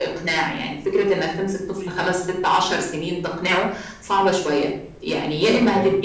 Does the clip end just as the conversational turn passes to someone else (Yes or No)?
No